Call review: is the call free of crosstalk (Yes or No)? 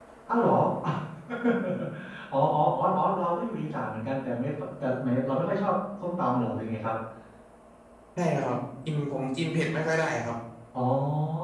Yes